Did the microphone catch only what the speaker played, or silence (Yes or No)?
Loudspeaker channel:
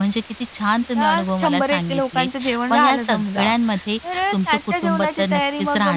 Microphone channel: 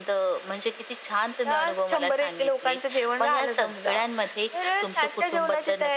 Yes